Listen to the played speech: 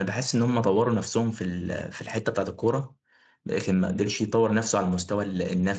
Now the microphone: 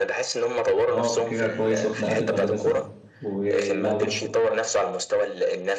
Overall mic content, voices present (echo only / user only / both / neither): both